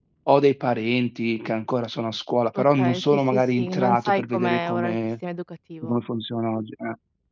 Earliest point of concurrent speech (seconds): 2.5 s

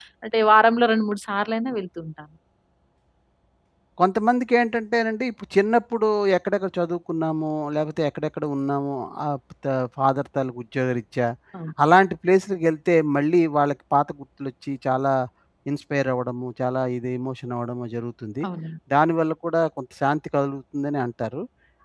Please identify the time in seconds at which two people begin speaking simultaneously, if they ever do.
none

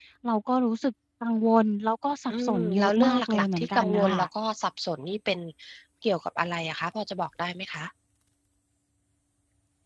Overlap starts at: 2.3 s

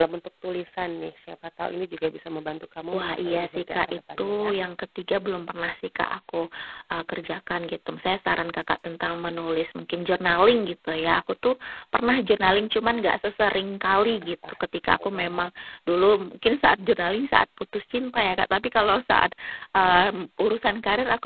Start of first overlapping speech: 2.9 s

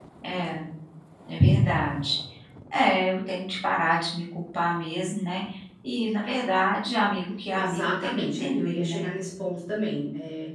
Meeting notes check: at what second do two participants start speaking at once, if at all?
7.5 s

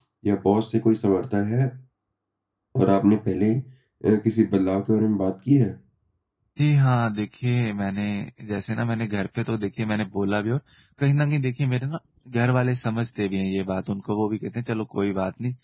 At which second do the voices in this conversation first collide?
none

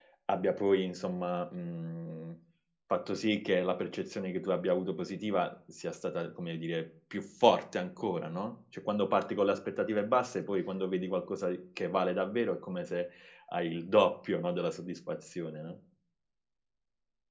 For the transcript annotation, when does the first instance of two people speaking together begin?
none

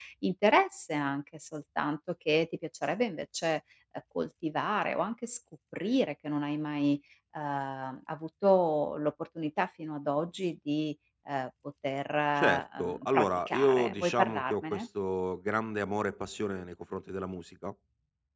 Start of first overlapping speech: 12.4 s

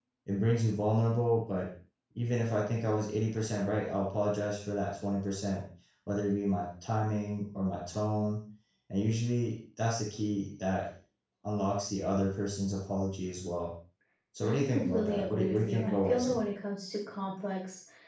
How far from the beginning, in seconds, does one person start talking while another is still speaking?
14.4 s

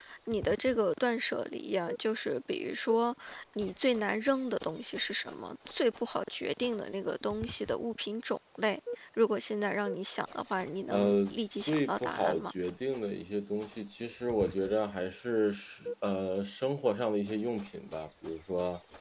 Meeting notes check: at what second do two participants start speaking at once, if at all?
10.9 s

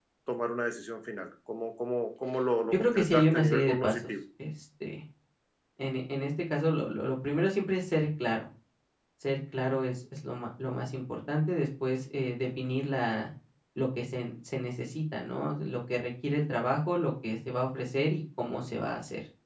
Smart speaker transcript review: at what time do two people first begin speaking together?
2.7 s

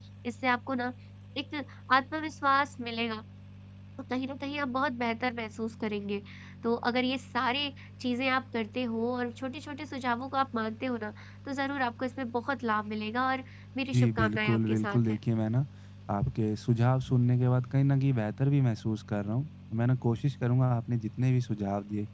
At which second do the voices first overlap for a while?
13.9 s

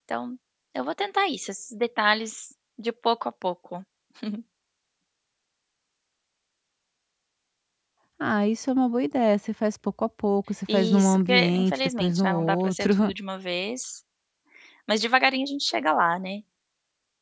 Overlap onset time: 10.7 s

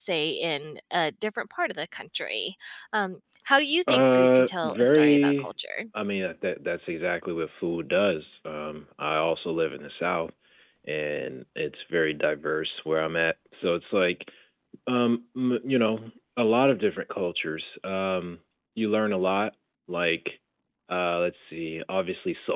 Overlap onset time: 3.9 s

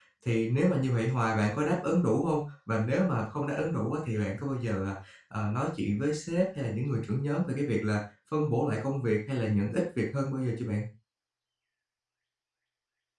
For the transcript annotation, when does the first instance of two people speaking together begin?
none

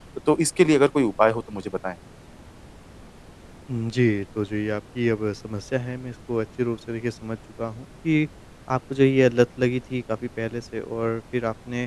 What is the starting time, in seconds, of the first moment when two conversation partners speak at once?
none

